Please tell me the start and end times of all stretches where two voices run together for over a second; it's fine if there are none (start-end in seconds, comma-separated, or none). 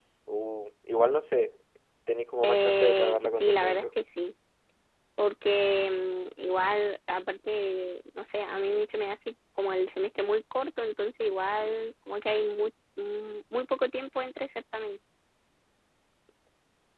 2.4-3.8